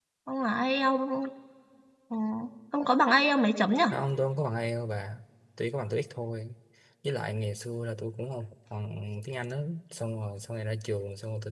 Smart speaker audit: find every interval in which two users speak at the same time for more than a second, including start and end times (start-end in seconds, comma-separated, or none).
none